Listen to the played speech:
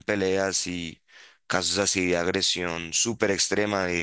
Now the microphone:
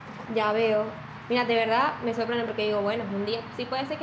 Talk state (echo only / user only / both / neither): user only